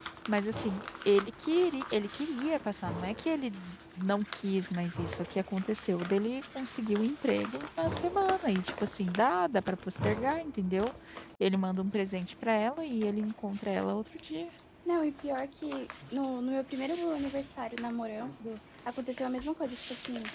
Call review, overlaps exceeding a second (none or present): none